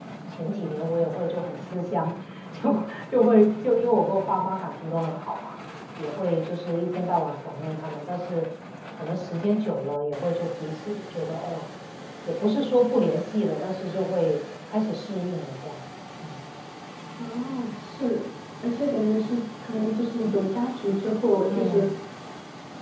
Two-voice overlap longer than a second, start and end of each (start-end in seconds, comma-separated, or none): none